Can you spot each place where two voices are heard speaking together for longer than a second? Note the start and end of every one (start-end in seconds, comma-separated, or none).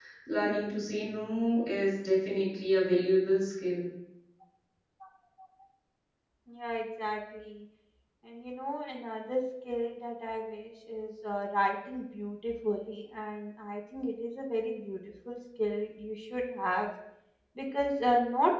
none